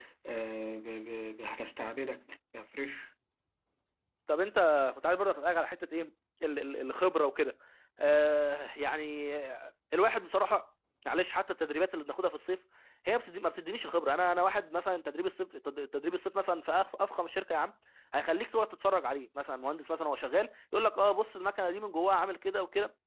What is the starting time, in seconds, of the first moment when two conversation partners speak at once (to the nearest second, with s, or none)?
none